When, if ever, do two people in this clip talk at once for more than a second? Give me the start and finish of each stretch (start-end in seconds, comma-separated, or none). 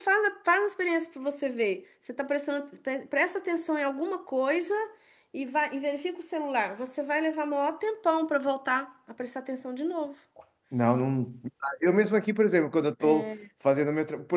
none